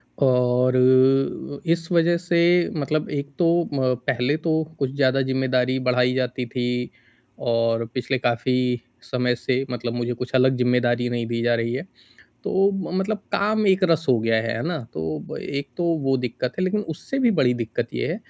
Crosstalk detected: No

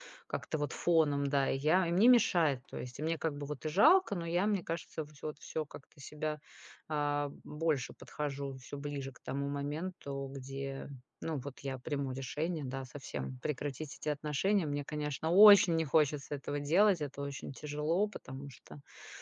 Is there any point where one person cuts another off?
No

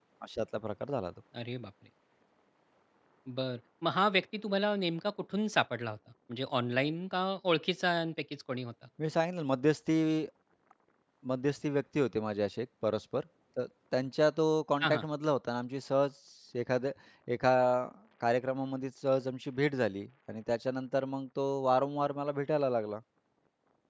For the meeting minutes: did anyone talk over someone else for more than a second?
No

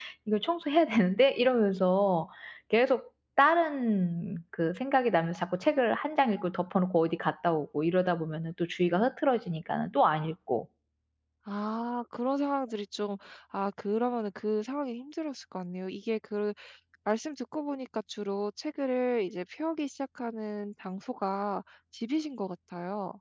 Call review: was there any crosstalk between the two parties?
No

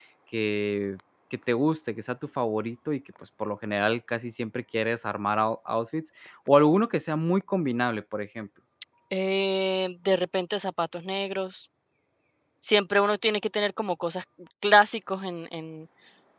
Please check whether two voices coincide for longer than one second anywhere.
No

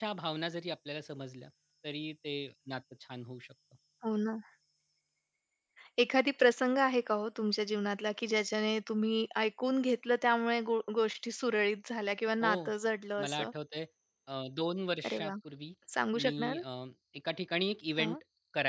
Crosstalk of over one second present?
No

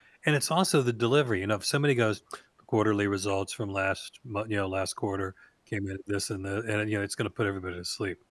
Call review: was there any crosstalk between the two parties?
No

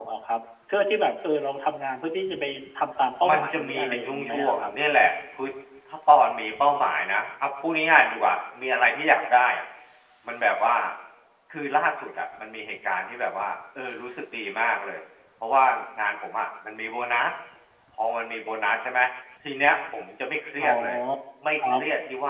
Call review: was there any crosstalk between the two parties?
Yes, from 3.3 s

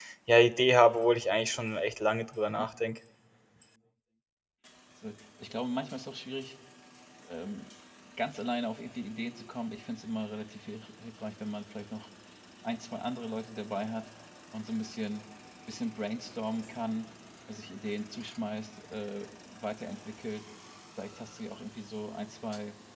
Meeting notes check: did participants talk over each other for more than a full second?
No

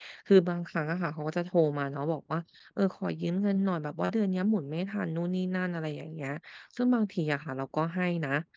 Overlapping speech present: No

